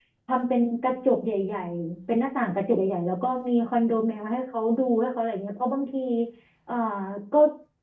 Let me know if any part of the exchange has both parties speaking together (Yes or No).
No